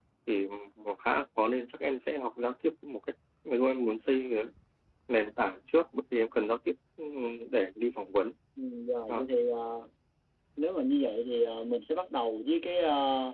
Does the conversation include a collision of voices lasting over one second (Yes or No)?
No